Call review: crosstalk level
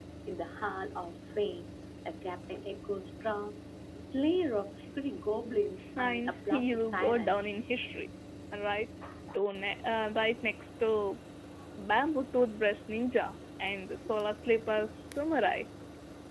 present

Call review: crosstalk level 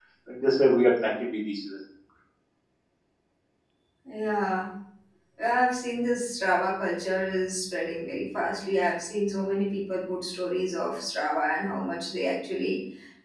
none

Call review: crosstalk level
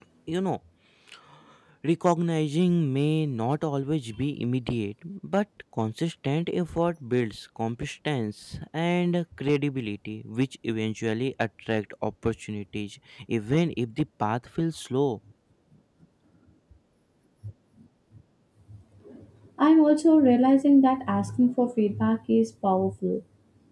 none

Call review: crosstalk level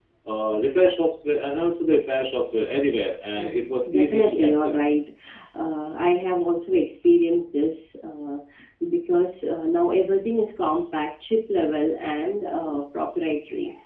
present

